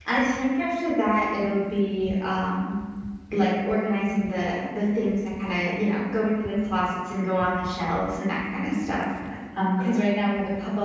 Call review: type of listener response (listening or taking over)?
listening